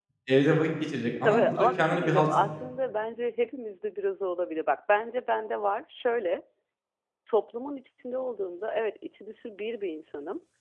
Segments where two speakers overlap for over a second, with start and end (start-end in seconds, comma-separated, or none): 1.2-2.5